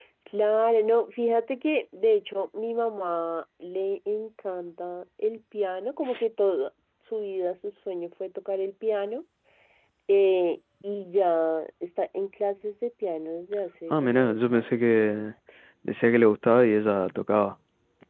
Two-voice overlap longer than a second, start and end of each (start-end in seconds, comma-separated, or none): 13.9-15.3